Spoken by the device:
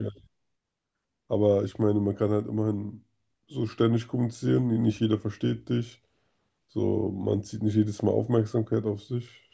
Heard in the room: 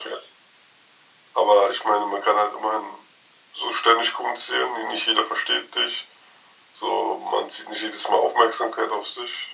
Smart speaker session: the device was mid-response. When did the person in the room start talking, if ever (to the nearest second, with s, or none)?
none